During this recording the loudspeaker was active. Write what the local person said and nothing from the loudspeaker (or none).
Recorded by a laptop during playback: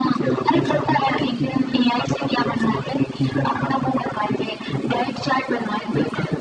none